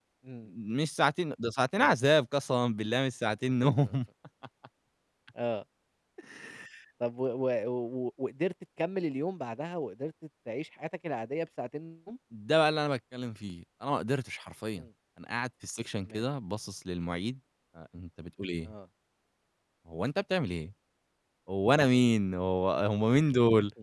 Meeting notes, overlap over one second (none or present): none